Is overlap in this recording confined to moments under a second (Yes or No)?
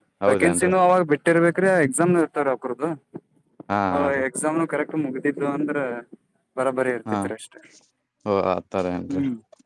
Yes